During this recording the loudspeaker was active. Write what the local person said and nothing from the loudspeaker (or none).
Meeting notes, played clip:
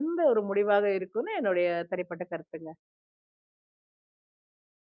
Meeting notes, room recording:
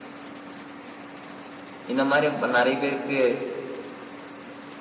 இந்த மாரி நெறைய பேருக்கு